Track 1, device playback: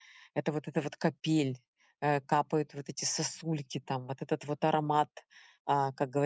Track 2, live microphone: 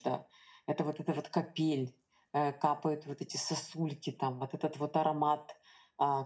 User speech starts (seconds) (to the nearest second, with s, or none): none